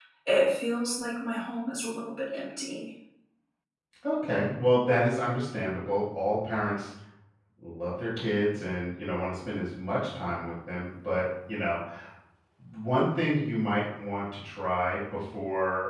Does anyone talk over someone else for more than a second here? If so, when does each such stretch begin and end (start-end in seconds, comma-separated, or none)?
none